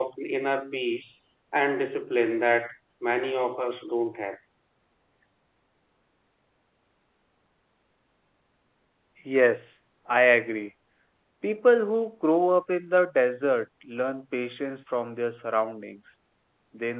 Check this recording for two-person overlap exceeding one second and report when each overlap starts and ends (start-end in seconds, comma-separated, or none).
none